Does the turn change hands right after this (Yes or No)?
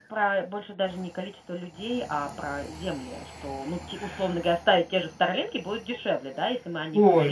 Yes